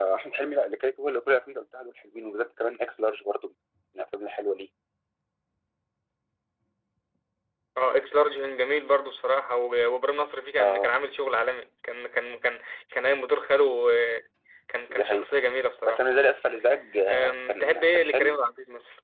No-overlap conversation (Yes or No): No